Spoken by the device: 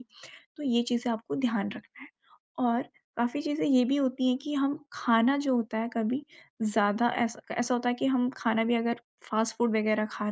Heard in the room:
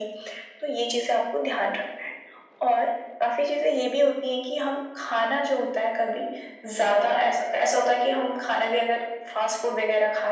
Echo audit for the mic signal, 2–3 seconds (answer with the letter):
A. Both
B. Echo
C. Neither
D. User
B